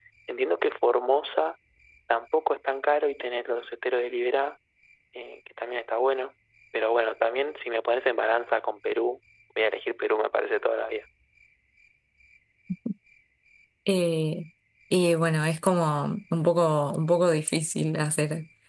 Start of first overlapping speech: none

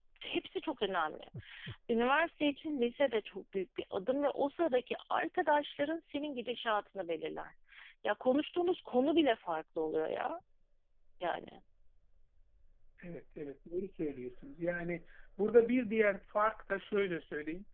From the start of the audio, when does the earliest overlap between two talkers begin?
none

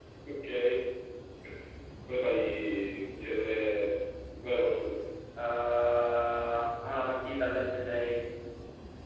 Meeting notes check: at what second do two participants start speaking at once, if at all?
none

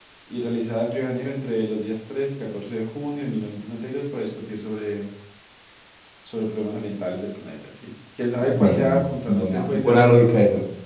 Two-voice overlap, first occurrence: 8.4 s

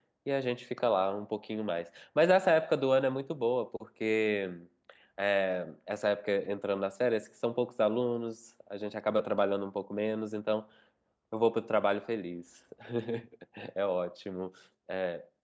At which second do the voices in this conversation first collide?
none

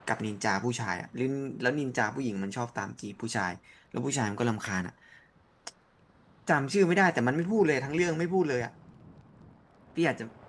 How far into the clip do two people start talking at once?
none

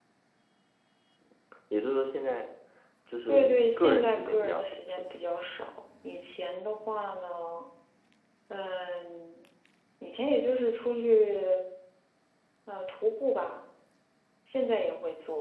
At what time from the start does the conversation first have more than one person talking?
3.3 s

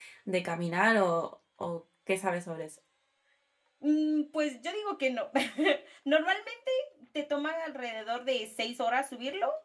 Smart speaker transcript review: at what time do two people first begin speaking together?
none

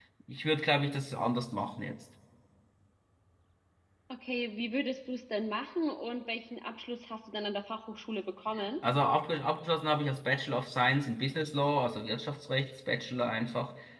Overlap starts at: none

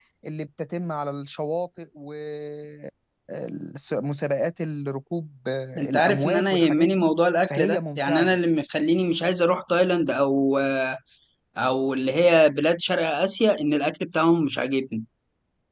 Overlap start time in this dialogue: 5.8 s

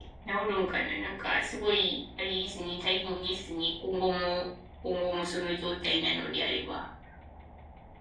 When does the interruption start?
none

